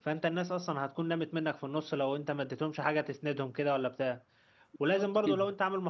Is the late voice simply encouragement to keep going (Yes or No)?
Yes